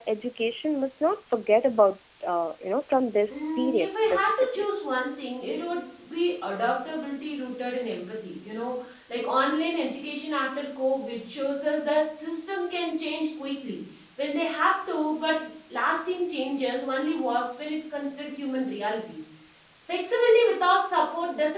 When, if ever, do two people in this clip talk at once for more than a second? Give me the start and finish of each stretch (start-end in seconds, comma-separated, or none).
3.3-4.6